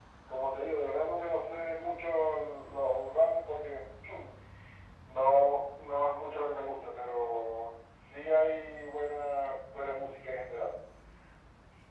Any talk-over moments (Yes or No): No